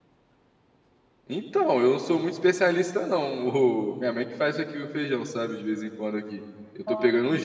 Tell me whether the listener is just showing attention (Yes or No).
Yes